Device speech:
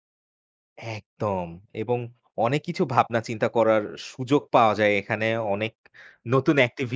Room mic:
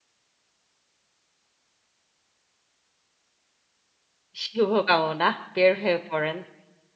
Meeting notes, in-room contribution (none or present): present